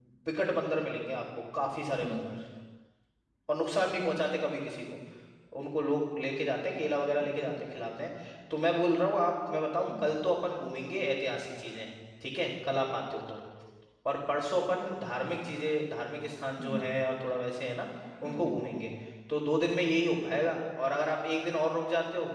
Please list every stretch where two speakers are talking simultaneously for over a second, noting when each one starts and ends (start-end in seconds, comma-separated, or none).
none